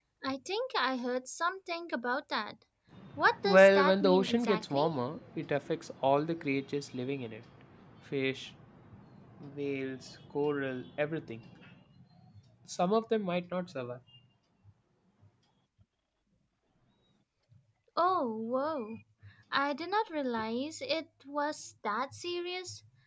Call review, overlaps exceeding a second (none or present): present